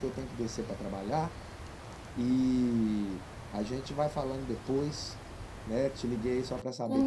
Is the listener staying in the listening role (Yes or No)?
No